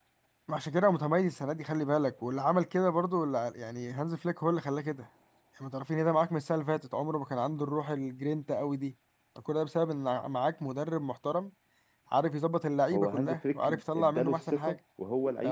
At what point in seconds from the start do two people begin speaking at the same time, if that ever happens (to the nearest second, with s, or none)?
13 s